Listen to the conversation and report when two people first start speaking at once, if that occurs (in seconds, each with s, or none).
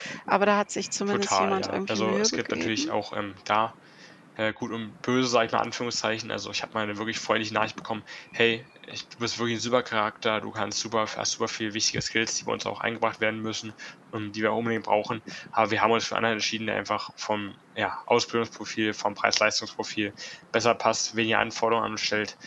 1.1 s